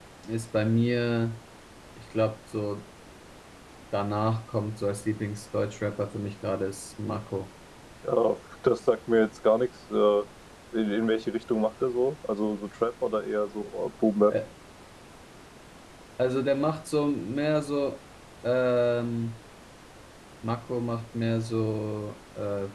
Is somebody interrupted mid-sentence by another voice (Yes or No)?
No